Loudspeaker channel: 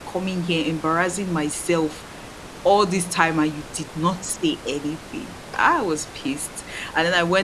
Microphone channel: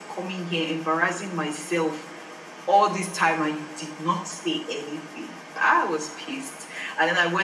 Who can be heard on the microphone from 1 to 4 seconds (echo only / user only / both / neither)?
echo only